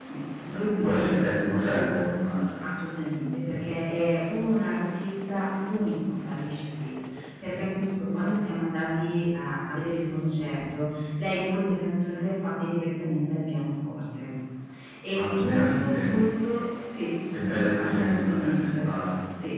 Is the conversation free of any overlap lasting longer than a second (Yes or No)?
No